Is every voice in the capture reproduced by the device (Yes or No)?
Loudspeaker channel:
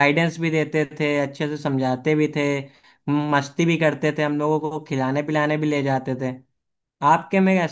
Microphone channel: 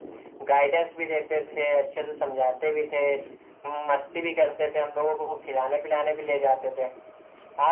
Yes